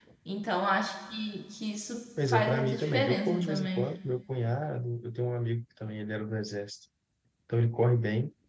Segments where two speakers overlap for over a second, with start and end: 2.3-3.9

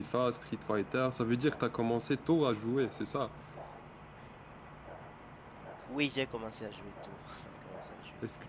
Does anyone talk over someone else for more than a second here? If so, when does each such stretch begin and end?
none

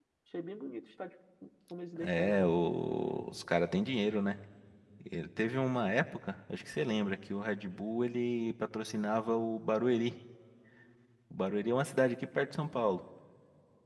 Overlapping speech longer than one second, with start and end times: none

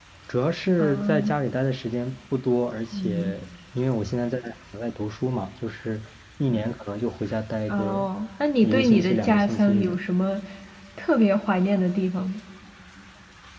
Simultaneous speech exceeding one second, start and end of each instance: 8.6-10.0

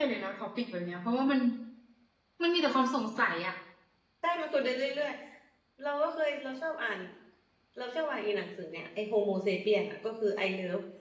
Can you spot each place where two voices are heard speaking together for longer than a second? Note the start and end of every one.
none

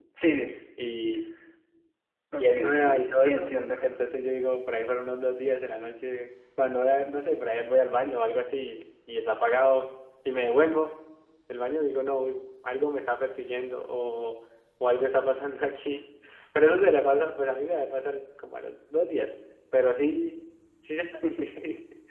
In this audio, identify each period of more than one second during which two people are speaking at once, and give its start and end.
2.3-3.5

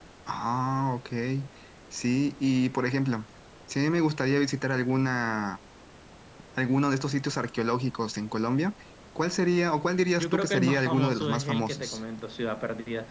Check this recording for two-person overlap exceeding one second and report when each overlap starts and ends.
10.2-12.0

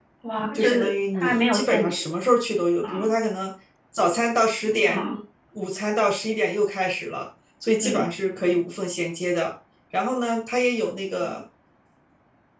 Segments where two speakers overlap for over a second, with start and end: 0.5-2.0

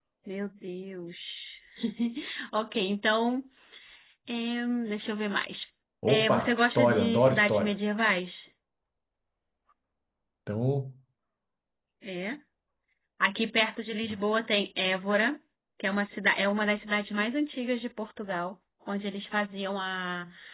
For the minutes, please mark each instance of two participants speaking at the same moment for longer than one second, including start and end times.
6.1-7.7

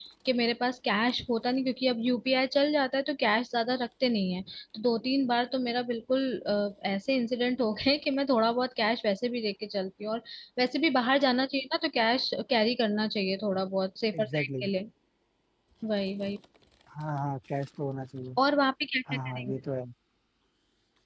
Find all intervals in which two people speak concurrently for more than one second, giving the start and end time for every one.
none

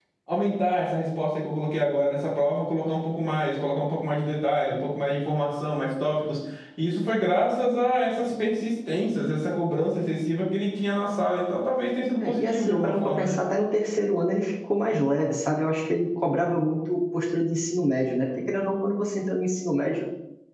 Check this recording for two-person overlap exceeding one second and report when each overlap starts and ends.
12.2-13.4

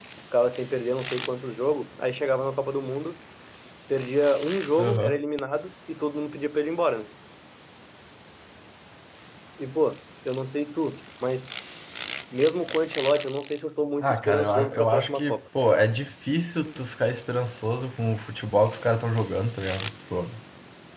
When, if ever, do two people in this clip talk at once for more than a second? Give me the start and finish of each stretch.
14.0-15.4

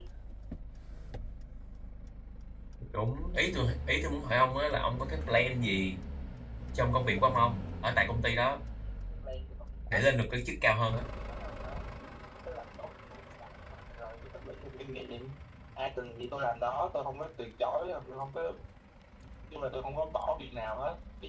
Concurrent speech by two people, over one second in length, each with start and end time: none

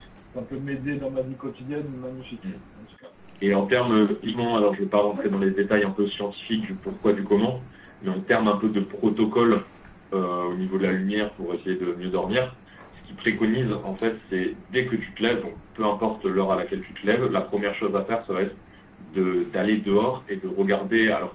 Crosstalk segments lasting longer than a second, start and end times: none

